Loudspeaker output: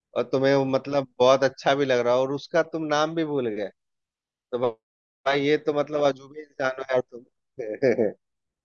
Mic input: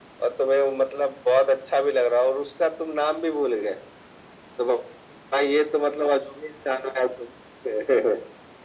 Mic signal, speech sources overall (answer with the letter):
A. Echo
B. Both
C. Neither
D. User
A